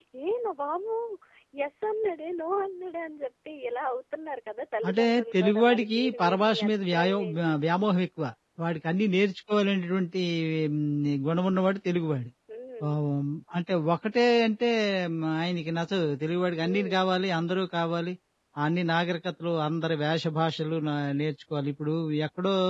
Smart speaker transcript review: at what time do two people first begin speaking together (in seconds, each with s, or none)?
4.9 s